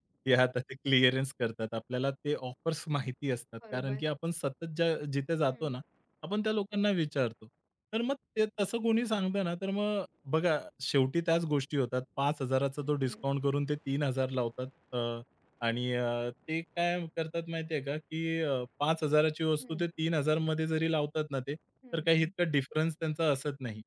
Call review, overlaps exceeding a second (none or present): none